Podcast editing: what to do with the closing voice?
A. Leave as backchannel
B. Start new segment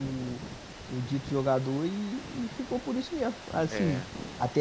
A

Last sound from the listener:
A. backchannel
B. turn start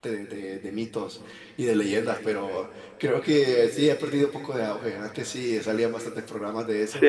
B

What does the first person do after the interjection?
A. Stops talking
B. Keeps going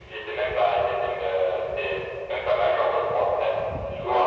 A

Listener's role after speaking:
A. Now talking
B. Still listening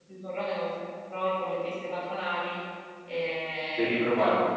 B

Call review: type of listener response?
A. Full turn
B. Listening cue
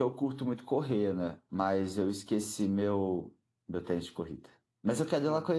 B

